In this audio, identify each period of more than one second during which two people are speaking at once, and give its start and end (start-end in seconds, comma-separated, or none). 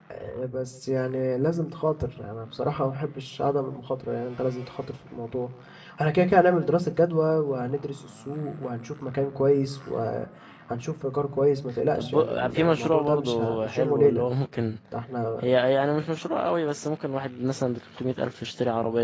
11.9-14.2